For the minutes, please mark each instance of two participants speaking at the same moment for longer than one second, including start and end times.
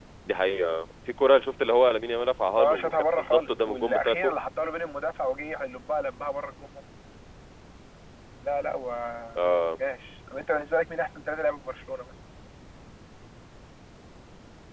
2.6-4.3

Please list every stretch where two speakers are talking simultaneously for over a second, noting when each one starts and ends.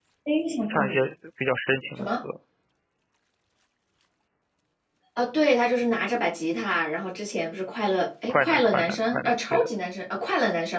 8.3-9.7

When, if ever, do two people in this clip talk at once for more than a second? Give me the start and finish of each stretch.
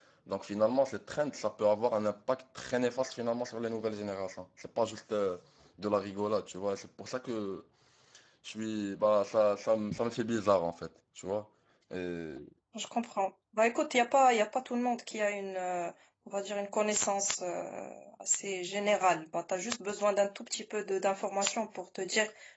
none

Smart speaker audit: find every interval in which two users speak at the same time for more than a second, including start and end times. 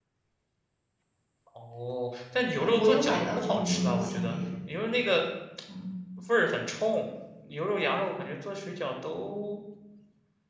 2.6-4.3

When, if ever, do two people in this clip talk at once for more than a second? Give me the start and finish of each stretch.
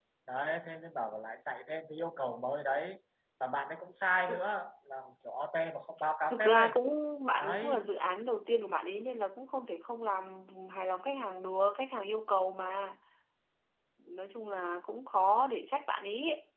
none

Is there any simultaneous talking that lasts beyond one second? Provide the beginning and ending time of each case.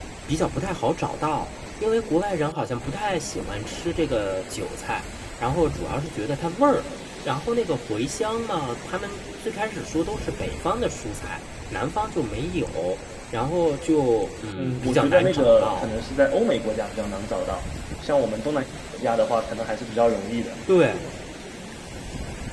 14.6-15.9

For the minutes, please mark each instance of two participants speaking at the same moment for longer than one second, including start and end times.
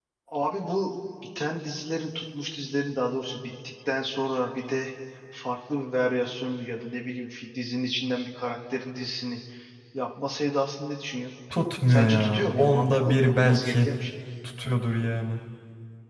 11.9-13.9

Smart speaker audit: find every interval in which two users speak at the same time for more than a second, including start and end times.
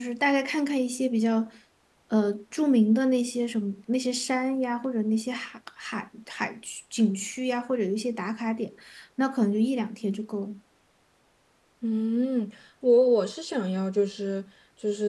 none

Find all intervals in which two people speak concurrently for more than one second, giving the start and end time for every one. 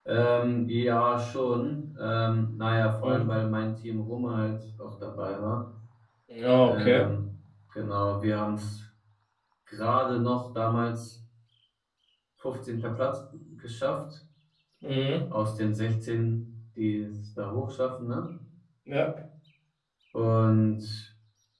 none

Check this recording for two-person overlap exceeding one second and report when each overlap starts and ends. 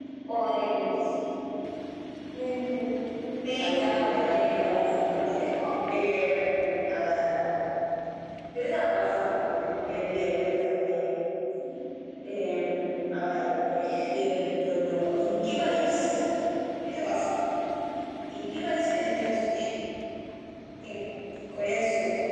3.6-5.1

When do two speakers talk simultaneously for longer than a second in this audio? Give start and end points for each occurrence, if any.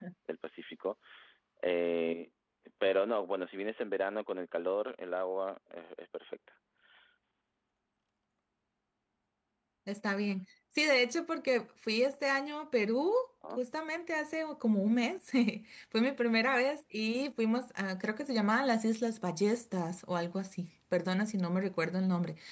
none

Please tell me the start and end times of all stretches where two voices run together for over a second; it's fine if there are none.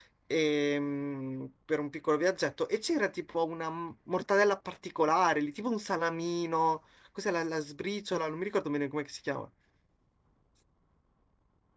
none

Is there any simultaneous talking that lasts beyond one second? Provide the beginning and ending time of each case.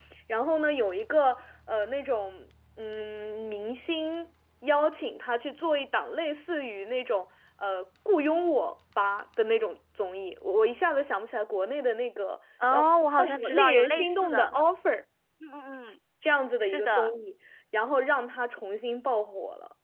13.2-14.5

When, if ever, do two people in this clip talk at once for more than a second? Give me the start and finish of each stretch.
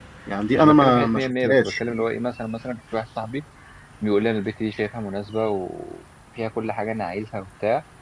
0.5-1.8

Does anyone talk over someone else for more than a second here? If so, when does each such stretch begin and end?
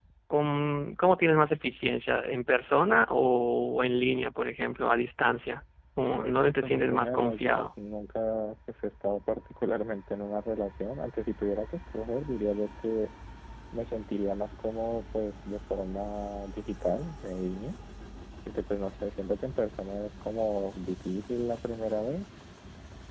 6.1-7.6

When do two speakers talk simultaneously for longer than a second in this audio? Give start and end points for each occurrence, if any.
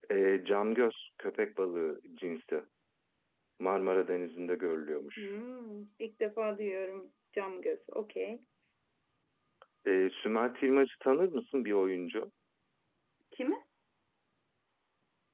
none

